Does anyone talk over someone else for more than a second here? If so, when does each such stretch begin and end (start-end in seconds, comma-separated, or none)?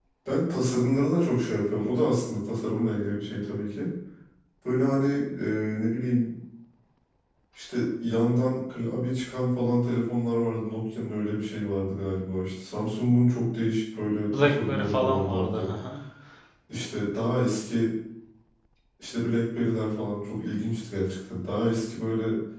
14.3-15.7